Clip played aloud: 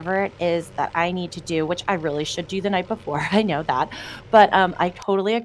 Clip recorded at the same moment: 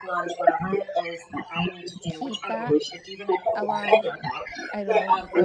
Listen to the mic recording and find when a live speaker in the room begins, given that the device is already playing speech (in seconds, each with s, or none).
2.1 s